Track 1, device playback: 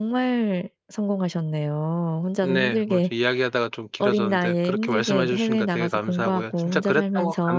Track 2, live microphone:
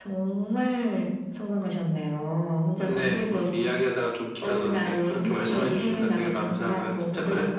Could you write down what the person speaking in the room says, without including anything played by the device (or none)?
none